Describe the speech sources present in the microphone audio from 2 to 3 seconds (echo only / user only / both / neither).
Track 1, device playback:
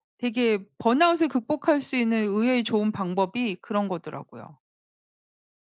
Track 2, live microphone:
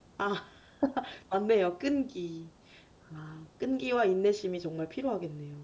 user only